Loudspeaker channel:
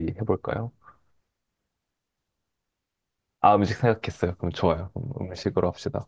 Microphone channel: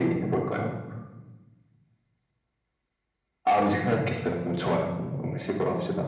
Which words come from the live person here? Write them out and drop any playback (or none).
none